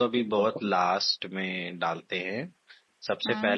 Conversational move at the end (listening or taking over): listening